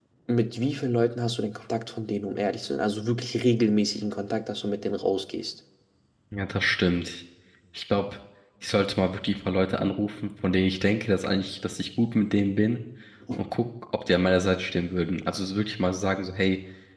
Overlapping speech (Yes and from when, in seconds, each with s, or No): No